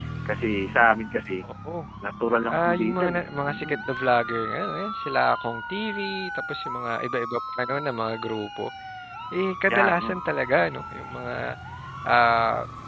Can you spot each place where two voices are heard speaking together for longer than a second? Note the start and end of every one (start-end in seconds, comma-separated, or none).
2.5-3.8